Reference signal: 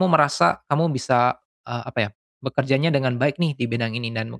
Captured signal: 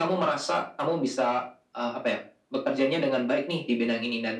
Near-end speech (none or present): none